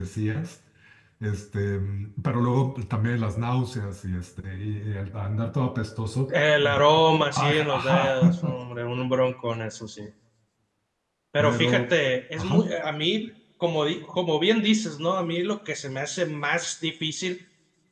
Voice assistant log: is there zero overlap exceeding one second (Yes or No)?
No